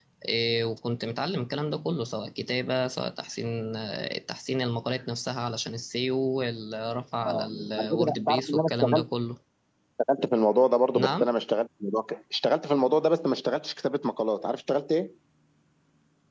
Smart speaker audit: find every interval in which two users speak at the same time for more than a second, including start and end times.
7.2-9.1

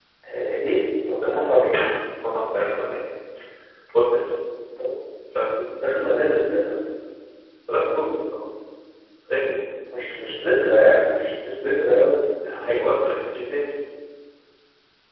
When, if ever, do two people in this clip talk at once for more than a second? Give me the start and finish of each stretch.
none

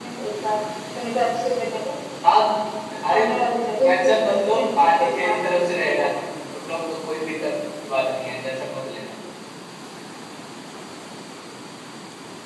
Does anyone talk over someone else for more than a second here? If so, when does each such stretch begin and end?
3.9-6.1

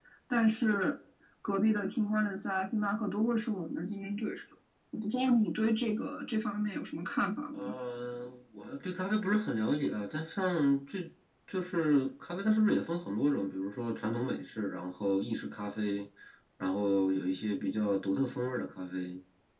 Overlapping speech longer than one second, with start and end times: none

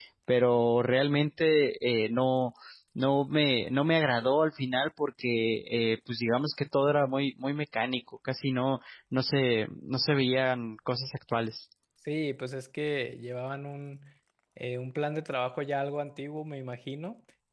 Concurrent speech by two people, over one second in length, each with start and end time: none

